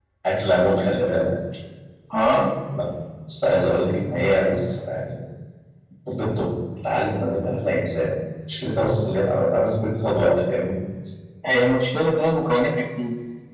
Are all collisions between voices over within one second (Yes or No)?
Yes